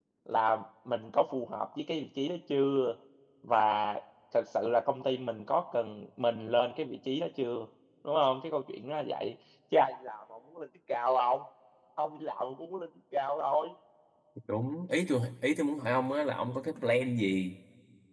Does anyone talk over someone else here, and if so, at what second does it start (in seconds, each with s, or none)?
none